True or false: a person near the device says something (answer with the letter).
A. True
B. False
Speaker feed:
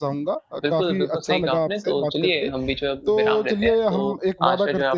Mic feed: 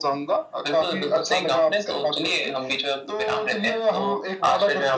B